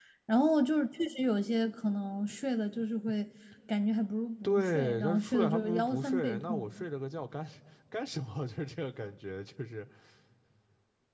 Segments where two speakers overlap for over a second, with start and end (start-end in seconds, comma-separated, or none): 4.4-6.8